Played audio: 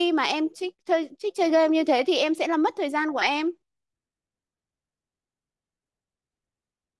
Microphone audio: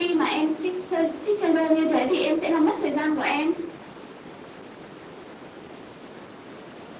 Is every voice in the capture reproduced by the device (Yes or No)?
Yes